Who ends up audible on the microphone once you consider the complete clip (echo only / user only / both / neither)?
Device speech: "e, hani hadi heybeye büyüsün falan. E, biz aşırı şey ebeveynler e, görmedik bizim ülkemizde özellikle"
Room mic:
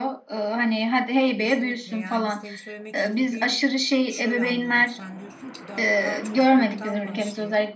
both